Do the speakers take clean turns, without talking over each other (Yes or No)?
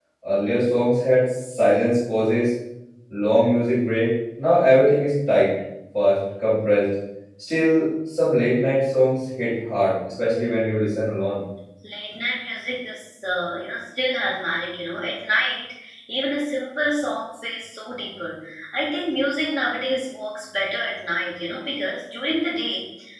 Yes